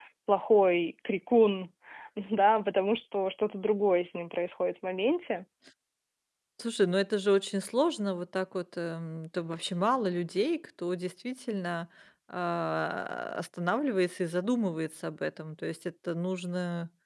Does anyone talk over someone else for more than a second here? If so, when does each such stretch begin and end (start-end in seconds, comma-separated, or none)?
none